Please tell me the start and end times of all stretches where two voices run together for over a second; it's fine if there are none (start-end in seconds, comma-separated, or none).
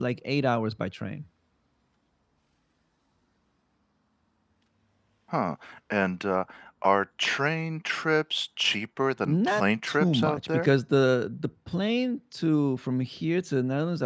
9.2-10.7